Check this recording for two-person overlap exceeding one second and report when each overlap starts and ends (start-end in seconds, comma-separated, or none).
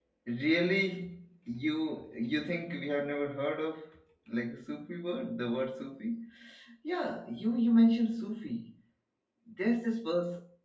none